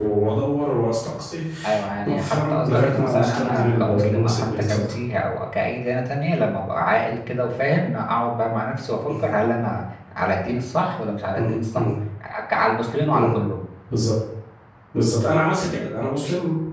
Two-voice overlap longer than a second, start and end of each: 2.1-4.9

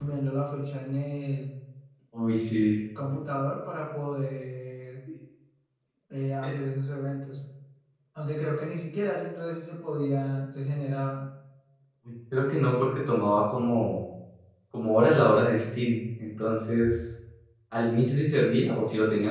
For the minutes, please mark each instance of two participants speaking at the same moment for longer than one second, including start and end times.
none

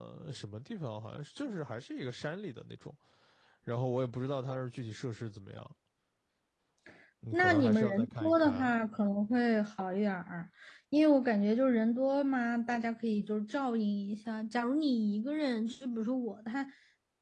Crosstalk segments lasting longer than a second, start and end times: 7.3-8.7

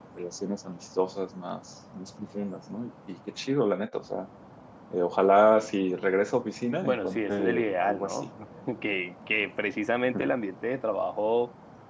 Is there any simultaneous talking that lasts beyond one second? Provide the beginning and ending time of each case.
6.8-8.3

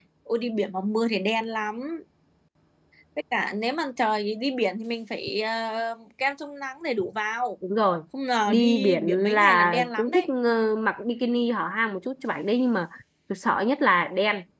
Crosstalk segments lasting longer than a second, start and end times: 8.5-10.3

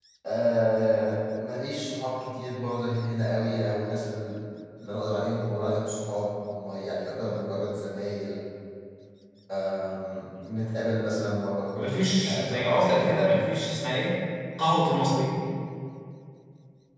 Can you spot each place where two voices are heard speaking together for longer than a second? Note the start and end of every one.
11.8-13.2

